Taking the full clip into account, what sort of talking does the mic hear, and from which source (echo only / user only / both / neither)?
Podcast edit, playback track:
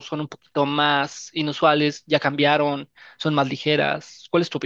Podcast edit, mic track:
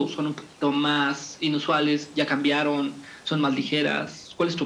echo only